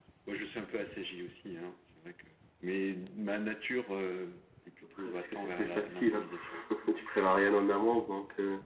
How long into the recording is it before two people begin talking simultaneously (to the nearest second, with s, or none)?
5 s